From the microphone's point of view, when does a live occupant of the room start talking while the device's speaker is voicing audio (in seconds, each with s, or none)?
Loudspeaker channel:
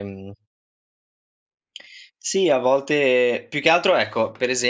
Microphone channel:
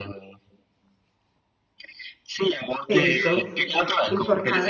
2.9 s